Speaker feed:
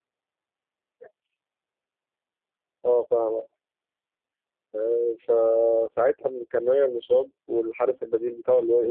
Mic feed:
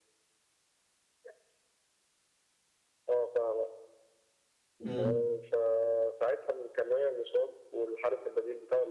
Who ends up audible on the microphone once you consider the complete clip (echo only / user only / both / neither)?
both